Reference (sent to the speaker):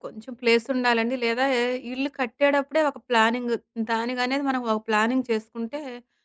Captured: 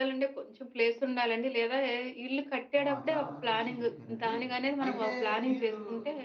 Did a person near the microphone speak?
Yes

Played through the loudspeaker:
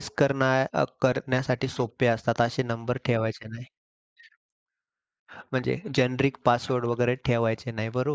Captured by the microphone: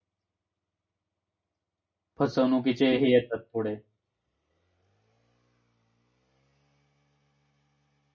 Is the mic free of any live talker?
No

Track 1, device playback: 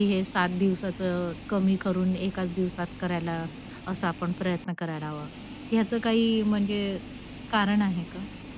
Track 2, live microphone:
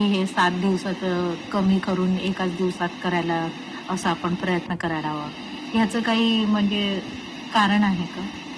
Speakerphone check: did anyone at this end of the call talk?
No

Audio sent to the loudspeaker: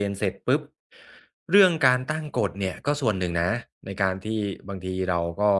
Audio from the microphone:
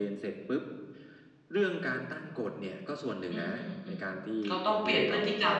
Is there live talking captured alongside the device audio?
Yes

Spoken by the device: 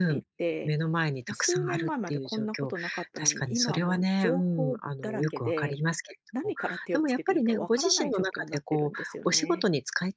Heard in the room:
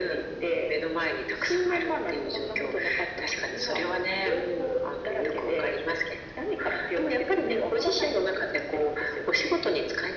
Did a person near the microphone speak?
No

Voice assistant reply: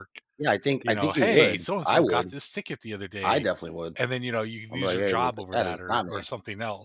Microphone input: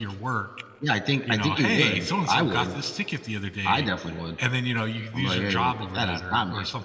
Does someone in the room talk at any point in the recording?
No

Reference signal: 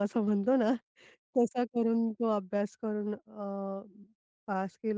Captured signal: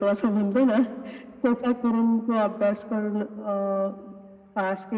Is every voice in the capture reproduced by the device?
Yes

